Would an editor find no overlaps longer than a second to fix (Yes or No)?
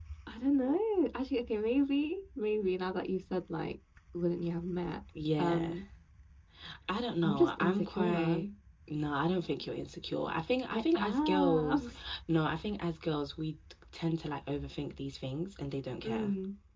No